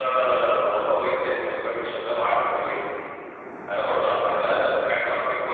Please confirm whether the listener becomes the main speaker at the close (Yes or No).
No